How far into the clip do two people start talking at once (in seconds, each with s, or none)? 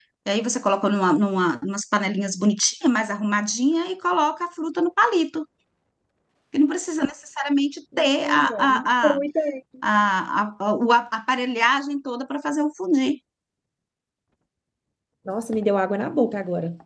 7.9 s